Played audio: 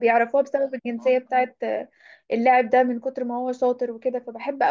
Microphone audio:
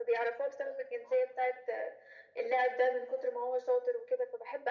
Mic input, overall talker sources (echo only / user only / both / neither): echo only